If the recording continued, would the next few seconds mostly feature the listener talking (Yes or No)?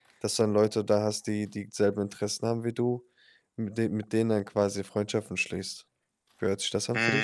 Yes